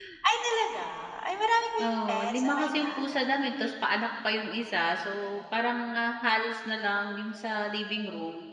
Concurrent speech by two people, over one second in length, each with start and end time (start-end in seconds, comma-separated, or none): 1.8-3.4